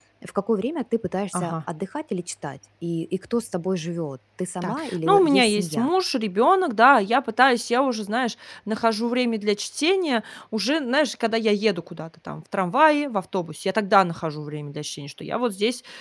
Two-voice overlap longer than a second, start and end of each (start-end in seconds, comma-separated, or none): 4.6-5.9